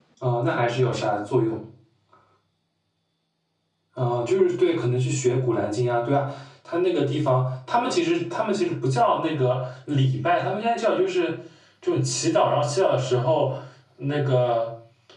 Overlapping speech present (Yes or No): No